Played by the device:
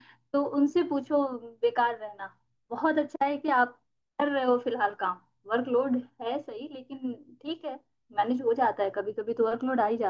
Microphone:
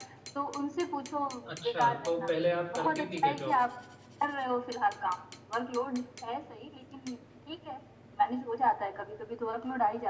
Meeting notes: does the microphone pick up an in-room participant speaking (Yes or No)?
Yes